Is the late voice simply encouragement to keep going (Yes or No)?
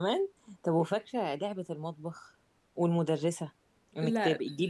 Yes